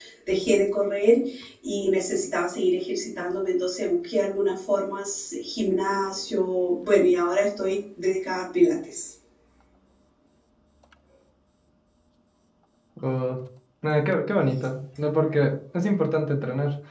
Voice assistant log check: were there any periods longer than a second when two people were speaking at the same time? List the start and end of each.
none

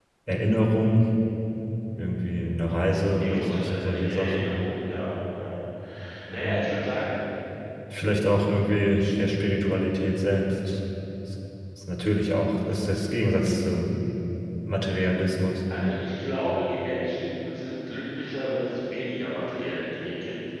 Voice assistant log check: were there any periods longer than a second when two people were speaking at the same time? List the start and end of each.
3.2-4.5

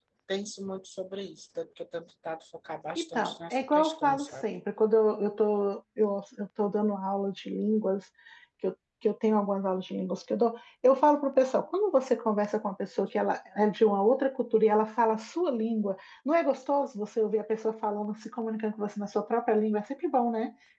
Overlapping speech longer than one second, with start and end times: 3.0-4.3

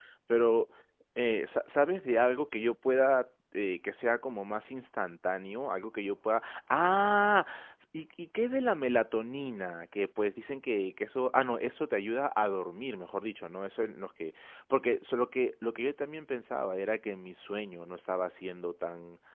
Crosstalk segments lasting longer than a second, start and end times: none

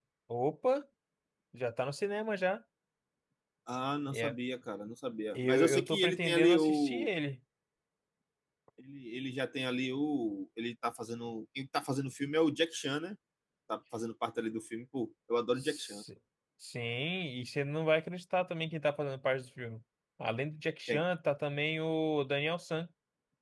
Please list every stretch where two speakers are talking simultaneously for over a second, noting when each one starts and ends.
5.3-7.1

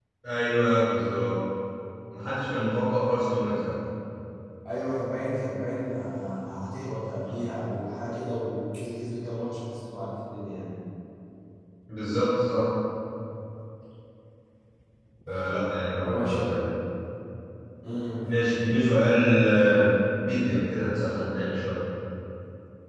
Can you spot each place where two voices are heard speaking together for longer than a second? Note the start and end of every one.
none

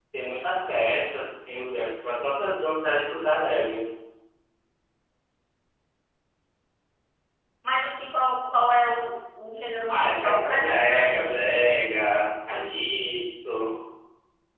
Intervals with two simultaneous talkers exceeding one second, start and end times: 9.9-11.4

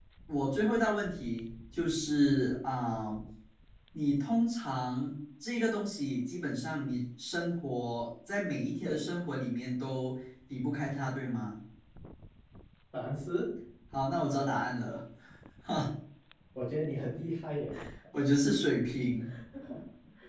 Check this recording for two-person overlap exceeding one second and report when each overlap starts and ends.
none

